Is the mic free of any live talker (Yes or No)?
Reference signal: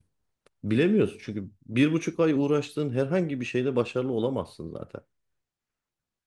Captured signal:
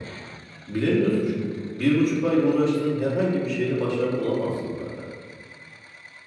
Yes